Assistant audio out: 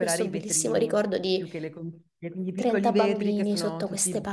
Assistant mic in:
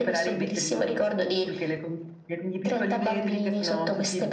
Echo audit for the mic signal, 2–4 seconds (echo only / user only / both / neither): echo only